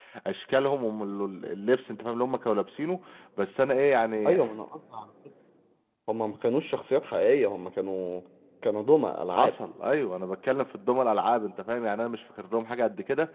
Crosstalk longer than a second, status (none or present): none